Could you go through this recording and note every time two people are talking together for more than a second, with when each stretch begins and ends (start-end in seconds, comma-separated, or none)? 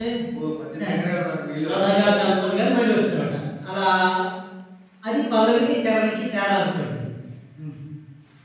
none